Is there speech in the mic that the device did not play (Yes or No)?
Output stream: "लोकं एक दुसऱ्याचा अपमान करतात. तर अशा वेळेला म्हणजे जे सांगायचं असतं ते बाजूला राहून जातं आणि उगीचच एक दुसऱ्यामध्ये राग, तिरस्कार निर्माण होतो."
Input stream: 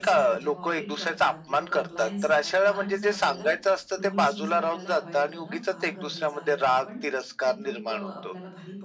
Yes